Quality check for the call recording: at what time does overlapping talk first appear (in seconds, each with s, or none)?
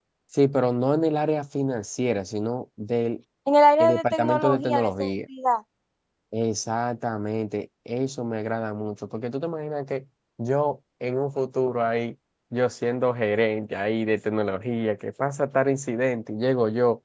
3.8 s